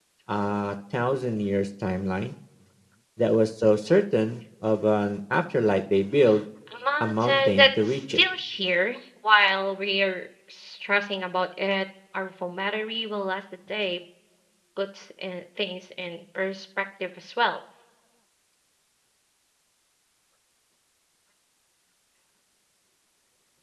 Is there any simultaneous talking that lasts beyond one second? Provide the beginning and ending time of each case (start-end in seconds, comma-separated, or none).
7.0-8.2